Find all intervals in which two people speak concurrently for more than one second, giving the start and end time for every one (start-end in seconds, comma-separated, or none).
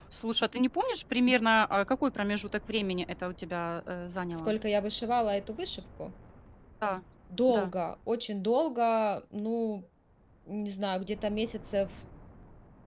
none